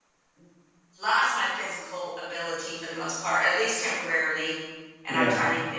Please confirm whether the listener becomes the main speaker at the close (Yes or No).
No